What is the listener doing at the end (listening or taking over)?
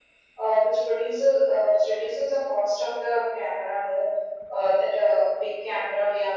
listening